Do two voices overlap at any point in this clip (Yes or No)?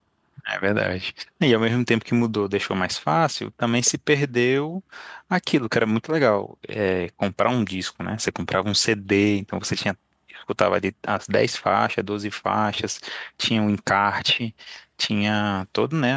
No